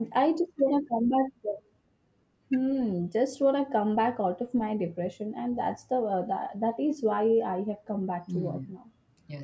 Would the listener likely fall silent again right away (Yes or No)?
No